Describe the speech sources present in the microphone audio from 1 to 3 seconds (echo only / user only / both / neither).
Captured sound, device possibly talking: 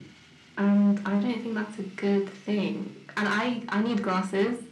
echo only